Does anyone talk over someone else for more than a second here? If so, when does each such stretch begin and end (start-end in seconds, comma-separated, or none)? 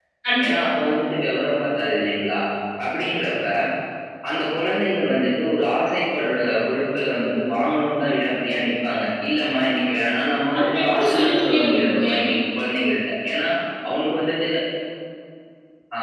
10.6-12.0